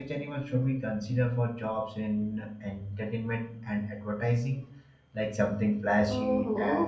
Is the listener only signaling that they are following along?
No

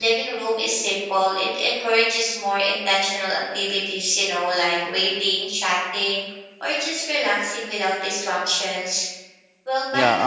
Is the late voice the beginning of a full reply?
Yes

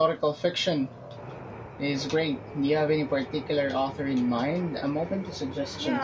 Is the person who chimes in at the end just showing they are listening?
No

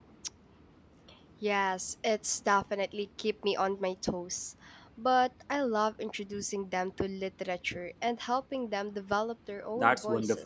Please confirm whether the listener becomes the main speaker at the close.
Yes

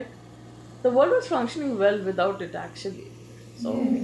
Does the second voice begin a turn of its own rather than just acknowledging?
Yes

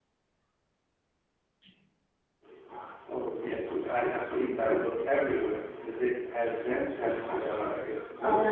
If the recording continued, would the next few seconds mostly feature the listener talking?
Yes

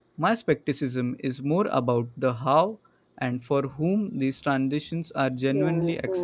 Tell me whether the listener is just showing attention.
No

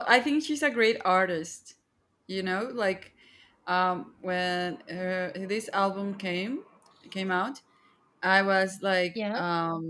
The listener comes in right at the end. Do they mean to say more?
No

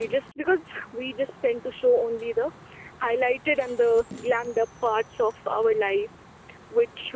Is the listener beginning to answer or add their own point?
No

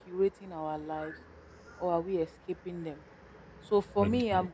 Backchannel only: Yes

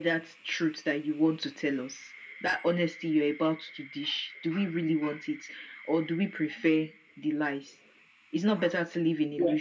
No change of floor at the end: No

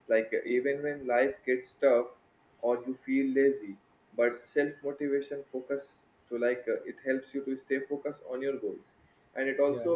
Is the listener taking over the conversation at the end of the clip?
No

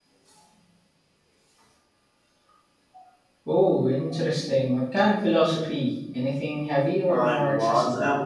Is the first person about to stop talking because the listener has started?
Yes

